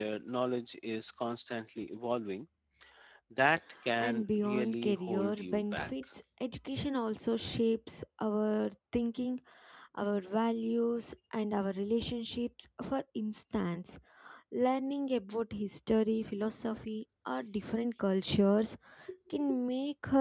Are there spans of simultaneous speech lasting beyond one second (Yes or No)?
Yes